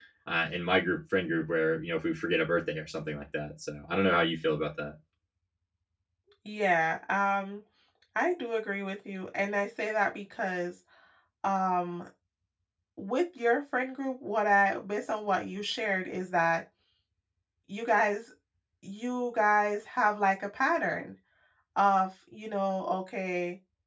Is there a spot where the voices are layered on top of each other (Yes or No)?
No